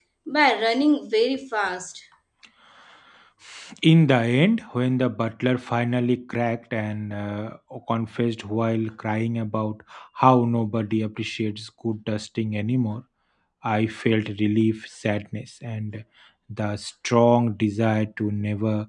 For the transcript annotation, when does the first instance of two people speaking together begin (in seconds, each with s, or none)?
none